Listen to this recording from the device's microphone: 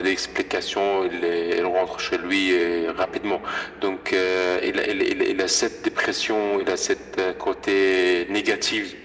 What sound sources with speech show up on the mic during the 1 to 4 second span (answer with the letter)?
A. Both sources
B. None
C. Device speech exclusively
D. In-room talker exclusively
C